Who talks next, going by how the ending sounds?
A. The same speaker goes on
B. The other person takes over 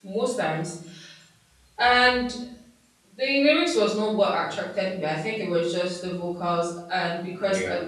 A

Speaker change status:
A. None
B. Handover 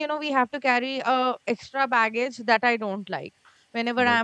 A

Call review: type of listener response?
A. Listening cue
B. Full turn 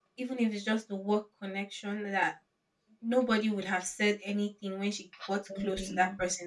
A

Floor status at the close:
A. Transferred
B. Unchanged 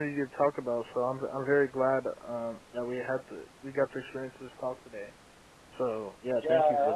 A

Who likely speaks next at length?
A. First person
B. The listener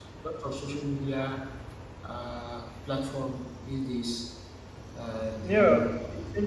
B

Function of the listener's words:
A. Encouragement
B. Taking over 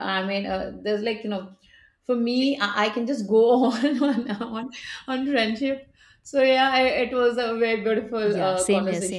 B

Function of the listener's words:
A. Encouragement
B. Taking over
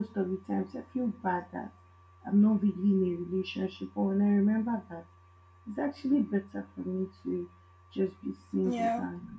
A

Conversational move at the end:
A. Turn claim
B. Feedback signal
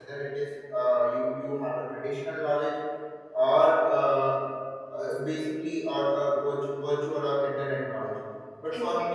B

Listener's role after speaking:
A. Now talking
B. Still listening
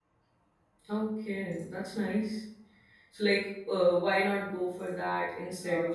A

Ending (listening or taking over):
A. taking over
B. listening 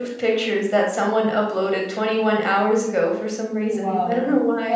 A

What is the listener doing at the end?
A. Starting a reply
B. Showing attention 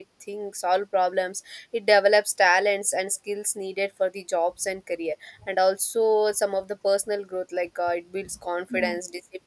B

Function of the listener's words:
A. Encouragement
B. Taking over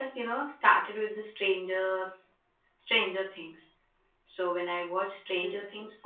A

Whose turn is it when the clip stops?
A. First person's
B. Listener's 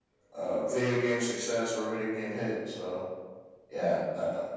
A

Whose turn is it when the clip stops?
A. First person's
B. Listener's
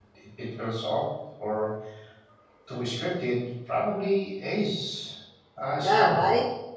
B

